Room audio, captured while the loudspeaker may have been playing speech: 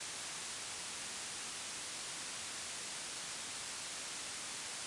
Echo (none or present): none